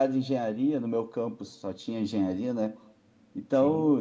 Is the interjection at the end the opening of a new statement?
No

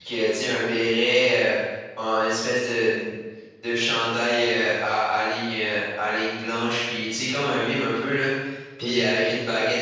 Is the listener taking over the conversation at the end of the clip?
No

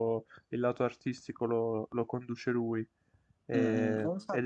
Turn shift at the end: Yes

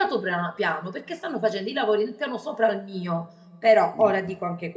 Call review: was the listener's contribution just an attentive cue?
Yes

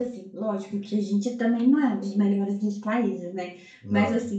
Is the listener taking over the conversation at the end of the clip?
No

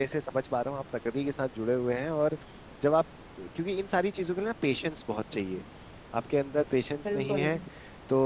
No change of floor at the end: Yes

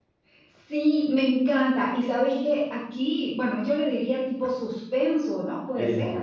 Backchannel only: Yes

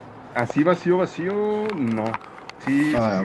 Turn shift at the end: No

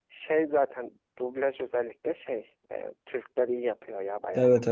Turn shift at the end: Yes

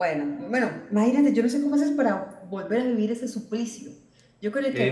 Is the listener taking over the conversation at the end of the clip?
Yes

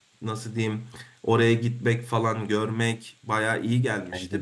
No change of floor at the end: Yes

